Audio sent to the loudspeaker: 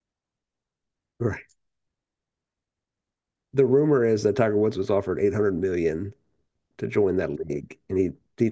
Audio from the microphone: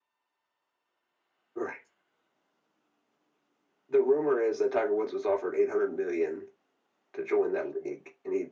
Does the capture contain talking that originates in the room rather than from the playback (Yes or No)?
No